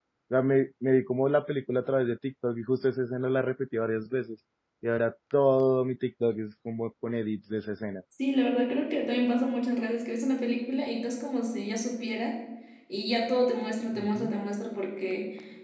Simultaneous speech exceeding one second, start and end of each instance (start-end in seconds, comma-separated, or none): none